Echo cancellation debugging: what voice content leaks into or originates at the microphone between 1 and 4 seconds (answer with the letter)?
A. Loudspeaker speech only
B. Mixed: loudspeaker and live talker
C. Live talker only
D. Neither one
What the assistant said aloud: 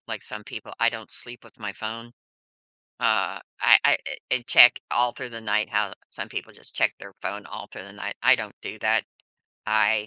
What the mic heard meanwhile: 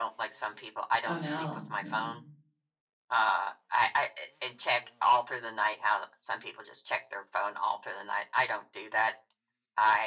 B